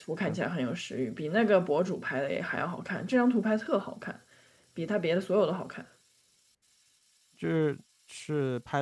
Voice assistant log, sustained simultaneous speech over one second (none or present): none